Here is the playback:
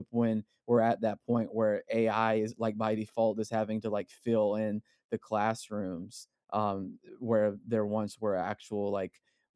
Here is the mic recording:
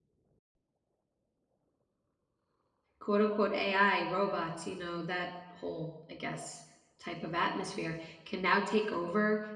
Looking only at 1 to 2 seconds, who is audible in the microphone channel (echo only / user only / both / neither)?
neither